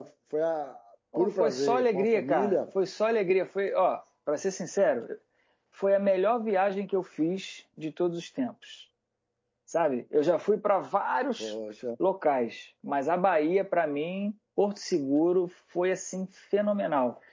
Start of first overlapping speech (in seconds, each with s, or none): 1.1 s